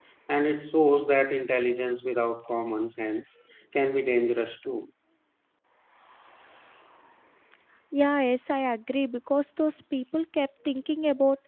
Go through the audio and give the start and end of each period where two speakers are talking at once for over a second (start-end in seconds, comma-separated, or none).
none